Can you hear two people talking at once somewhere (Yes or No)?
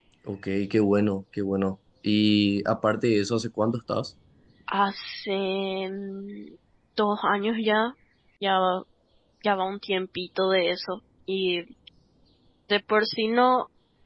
No